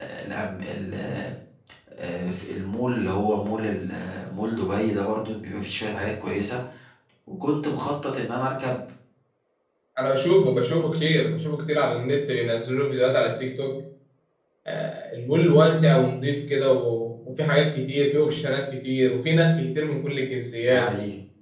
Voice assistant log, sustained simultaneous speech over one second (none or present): none